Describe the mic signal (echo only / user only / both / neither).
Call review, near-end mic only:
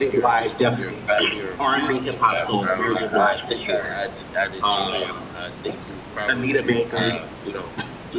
echo only